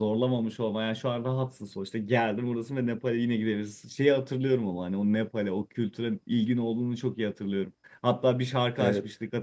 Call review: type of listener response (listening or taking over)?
listening